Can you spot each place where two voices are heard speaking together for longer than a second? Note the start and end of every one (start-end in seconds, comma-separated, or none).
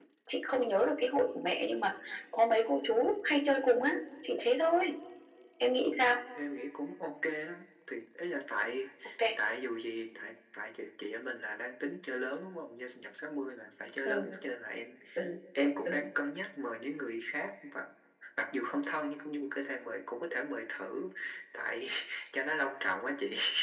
none